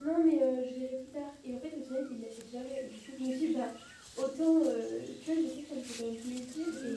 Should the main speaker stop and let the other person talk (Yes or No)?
No